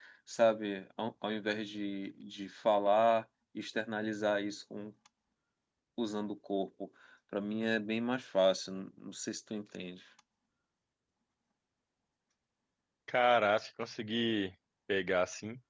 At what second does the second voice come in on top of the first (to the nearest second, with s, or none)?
none